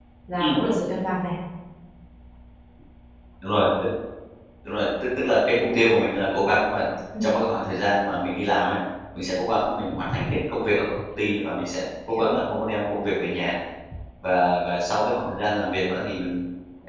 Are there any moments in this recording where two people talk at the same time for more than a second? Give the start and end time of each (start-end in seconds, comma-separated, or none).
none